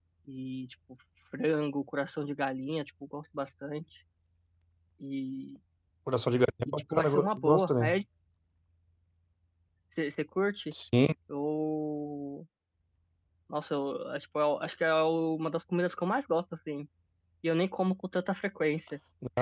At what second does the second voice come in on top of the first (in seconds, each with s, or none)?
6.7 s